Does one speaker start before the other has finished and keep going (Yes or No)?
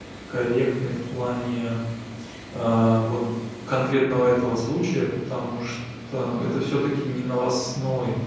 No